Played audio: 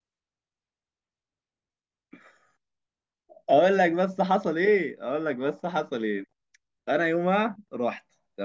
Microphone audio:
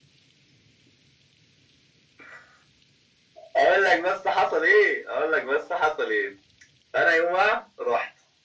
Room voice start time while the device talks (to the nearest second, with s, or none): none